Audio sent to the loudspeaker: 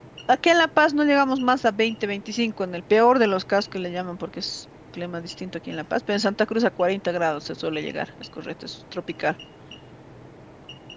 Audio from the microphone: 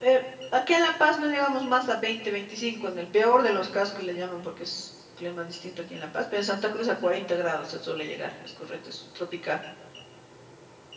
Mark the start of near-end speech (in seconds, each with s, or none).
none